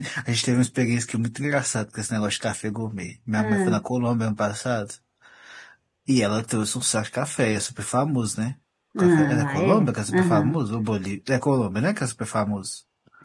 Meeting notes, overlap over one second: present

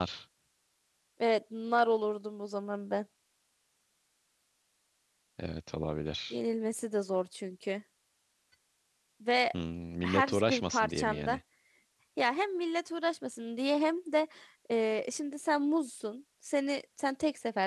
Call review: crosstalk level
present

